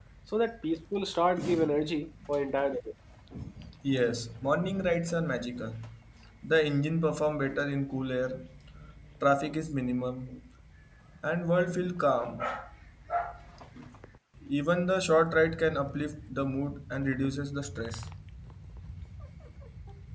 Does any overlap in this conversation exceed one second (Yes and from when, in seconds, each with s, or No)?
No